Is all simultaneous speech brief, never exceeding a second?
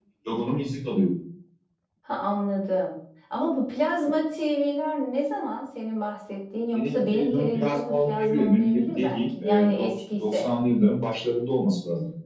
No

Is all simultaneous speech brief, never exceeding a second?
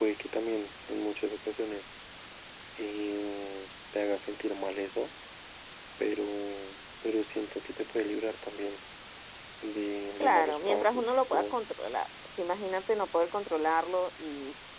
No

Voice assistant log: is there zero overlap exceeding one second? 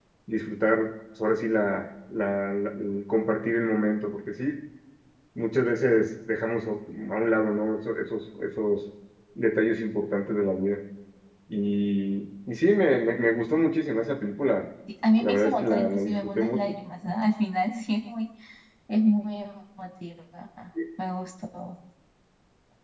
No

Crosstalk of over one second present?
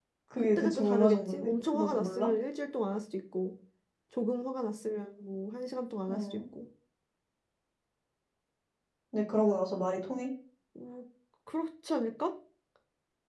Yes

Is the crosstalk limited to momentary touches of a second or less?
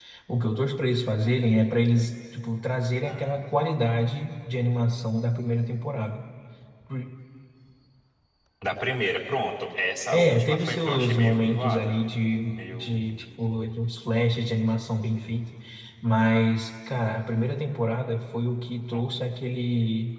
No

